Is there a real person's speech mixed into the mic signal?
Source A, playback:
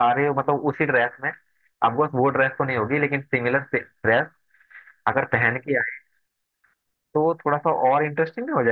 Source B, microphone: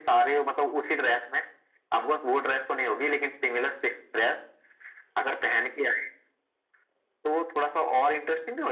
No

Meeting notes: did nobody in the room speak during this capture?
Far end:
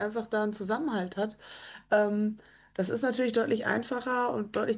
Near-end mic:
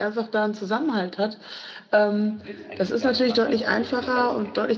No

